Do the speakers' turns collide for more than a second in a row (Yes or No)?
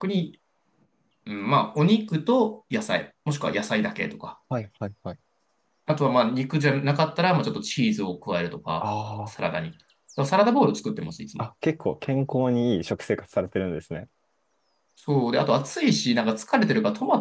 No